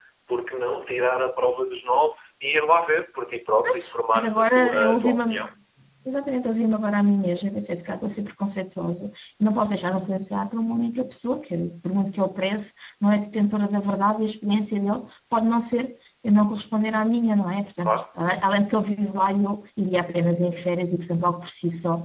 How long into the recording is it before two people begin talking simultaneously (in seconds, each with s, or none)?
3.6 s